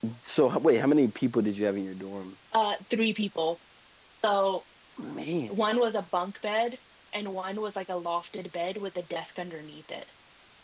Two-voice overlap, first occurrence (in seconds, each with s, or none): none